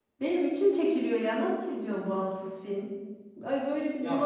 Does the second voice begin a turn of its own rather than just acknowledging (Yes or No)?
Yes